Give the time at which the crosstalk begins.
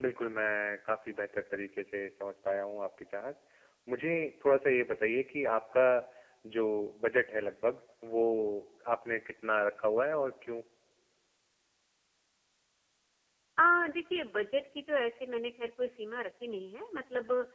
none

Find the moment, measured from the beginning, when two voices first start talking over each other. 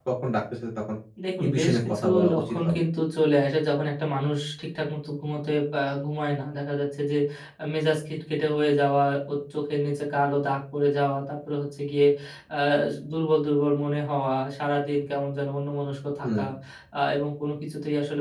1.4 s

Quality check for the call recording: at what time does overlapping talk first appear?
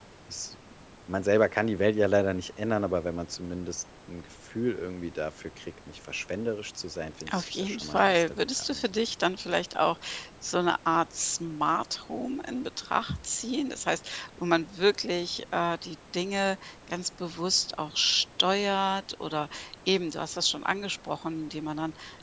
7.3 s

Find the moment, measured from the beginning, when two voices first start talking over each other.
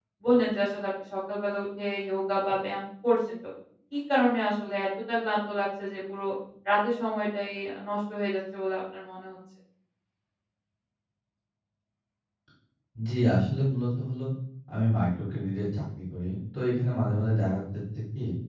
none

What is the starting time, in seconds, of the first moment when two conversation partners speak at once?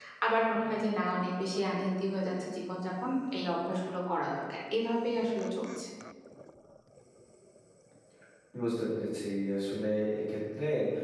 none

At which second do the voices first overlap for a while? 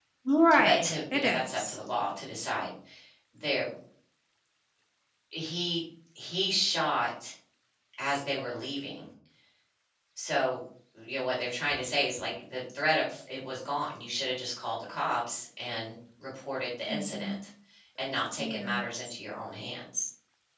0.6 s

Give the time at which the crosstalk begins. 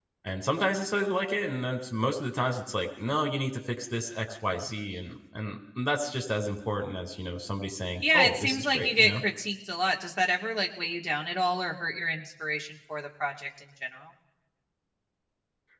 8.0 s

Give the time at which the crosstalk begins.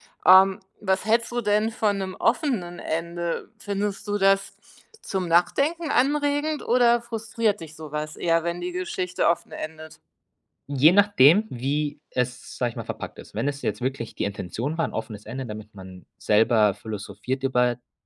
none

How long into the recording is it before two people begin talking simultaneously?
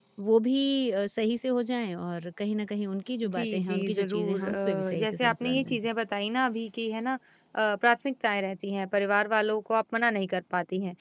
3.2 s

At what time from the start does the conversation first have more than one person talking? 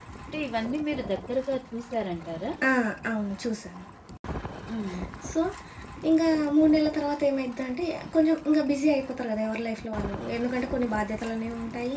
none

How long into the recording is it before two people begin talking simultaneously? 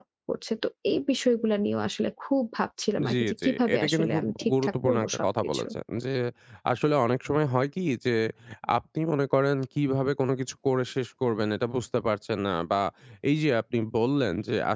3.0 s

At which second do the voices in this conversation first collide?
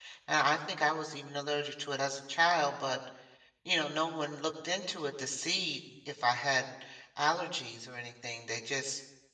none

